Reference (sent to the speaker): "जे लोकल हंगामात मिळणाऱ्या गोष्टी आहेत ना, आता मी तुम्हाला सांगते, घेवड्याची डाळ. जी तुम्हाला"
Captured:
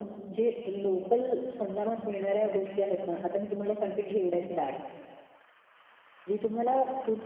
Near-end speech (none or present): none